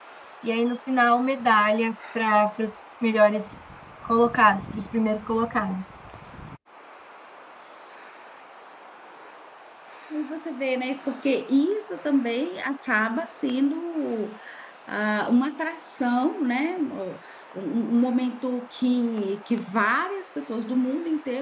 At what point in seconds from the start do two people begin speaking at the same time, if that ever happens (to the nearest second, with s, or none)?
none